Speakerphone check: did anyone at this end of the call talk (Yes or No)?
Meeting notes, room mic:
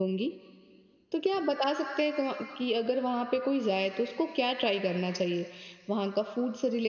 Yes